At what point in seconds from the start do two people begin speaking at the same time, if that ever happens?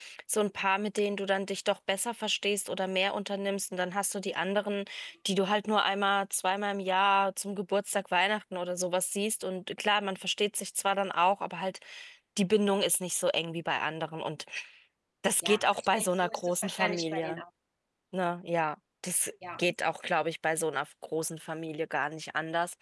15.4 s

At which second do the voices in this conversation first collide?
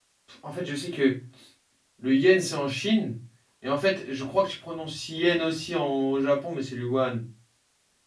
none

